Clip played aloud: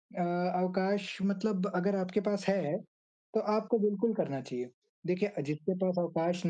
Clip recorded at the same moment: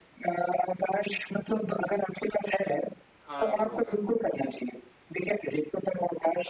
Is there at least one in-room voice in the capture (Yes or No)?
Yes